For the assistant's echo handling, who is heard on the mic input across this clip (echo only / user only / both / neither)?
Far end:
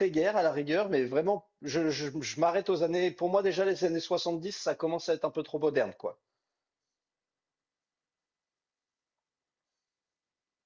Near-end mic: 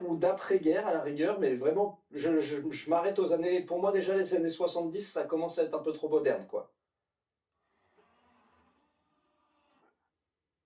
echo only